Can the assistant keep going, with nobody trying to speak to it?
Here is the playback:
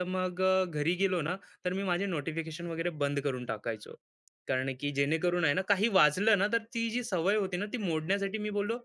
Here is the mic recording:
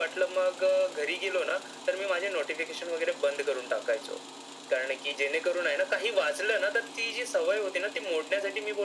Yes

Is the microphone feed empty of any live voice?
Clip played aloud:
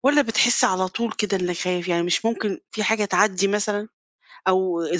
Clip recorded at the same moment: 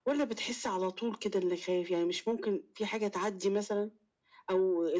Yes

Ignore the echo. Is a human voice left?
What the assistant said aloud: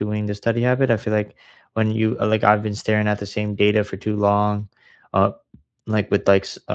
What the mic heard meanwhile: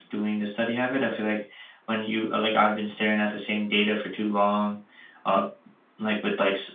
No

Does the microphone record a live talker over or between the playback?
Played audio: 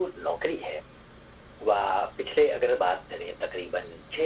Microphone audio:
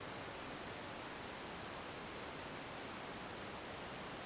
No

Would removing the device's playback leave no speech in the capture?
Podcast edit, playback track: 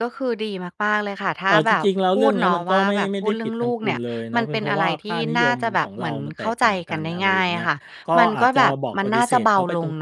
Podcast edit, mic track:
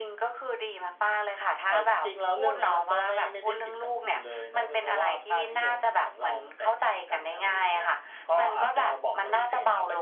Yes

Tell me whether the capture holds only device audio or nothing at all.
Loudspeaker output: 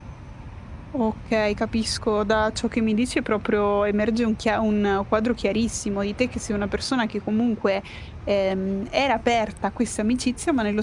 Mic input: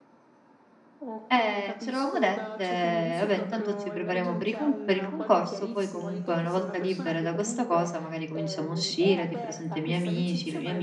No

